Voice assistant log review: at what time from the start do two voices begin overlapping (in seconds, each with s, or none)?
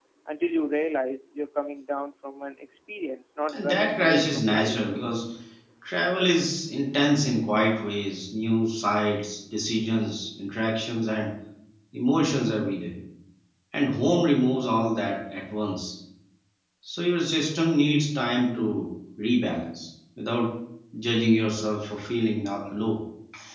3.5 s